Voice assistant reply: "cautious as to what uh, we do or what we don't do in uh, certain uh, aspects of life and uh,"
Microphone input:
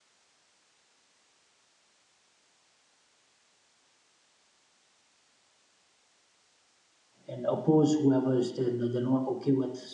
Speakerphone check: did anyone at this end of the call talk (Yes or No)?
Yes